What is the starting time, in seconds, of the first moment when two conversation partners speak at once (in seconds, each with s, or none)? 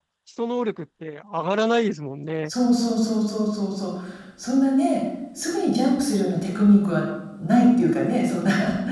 none